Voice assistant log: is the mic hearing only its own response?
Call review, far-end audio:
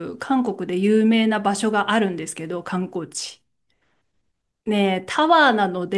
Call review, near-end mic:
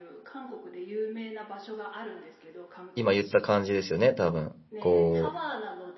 No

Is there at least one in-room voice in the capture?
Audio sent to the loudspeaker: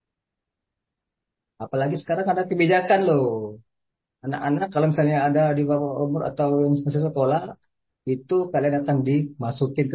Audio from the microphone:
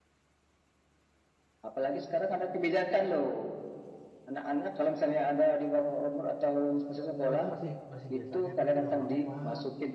Yes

